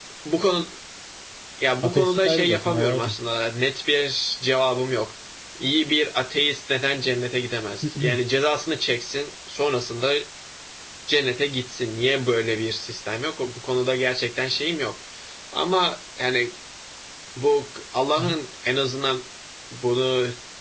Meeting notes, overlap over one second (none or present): present